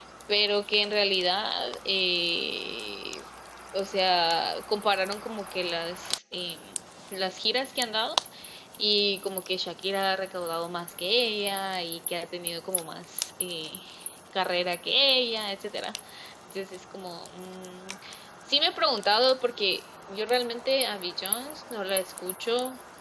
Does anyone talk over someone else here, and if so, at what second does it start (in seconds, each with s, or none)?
none